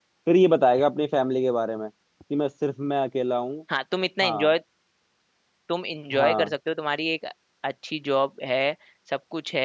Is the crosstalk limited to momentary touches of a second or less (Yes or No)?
Yes